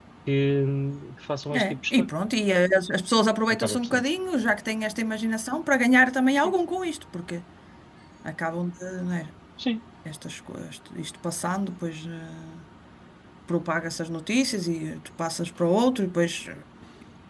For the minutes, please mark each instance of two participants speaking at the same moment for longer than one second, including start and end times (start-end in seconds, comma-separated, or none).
none